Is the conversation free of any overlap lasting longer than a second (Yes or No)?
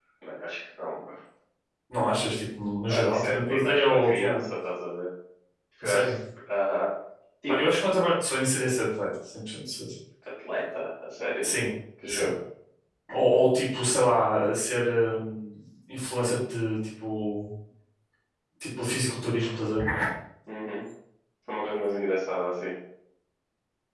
No